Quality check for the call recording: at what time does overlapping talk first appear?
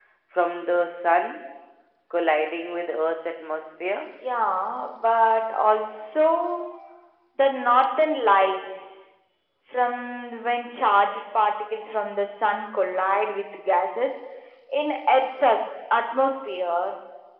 none

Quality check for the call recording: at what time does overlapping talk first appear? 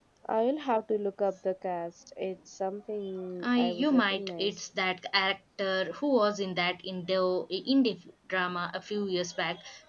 3.4 s

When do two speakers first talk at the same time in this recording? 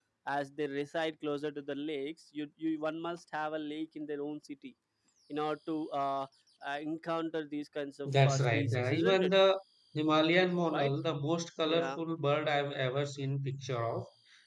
8.1 s

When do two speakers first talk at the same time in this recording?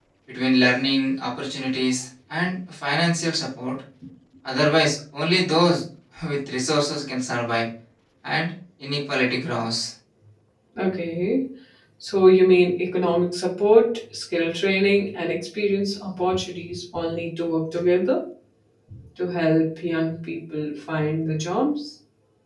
none

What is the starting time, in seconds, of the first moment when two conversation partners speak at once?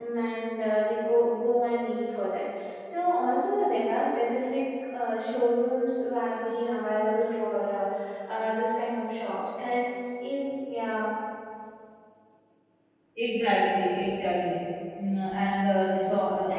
none

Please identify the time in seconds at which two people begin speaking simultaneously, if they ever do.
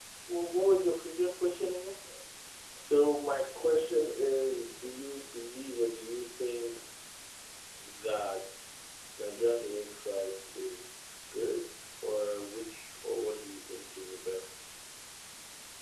none

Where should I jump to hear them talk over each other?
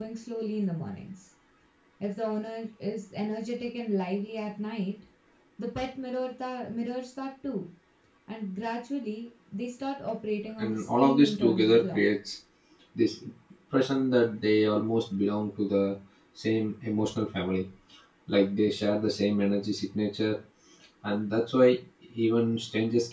10.6 s

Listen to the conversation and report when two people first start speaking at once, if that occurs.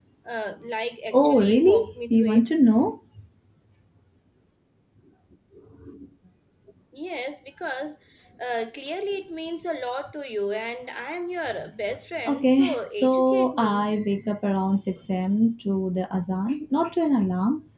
1.1 s

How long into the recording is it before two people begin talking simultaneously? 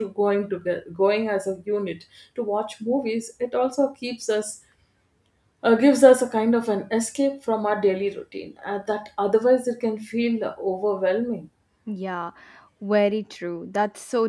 none

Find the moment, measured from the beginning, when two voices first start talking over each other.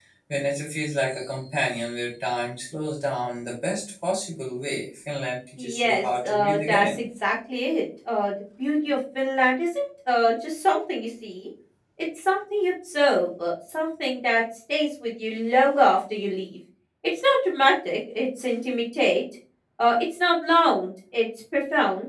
5.6 s

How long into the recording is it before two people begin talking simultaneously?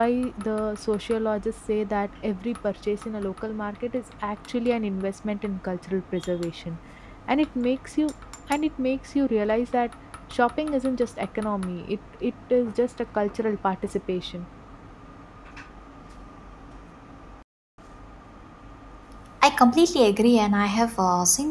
none

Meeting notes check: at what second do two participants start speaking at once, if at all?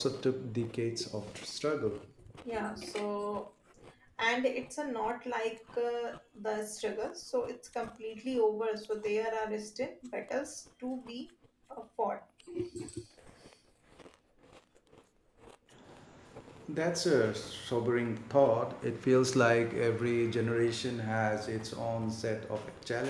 none

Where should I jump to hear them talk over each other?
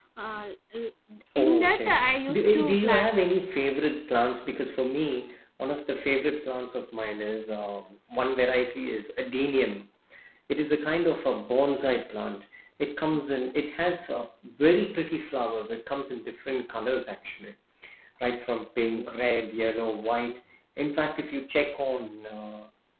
1.4 s

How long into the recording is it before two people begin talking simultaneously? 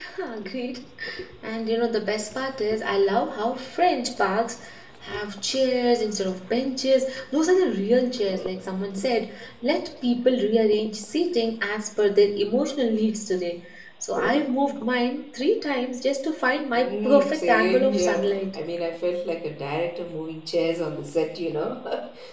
16.7 s

